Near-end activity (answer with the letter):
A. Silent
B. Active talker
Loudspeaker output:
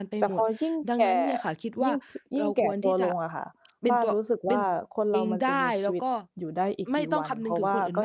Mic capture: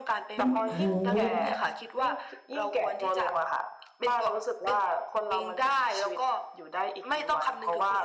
B